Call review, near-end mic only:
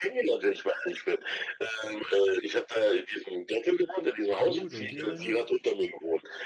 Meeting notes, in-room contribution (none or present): present